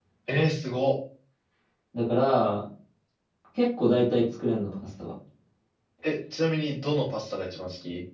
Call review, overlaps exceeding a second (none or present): none